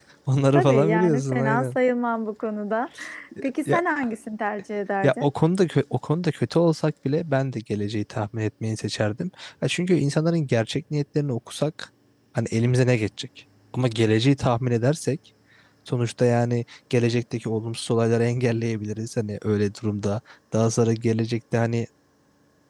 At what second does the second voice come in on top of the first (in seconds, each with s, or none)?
0.6 s